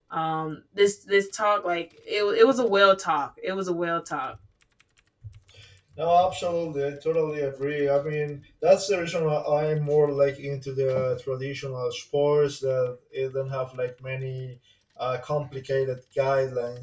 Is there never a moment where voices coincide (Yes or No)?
Yes